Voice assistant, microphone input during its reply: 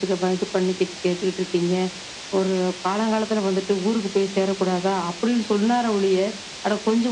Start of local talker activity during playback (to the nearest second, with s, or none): none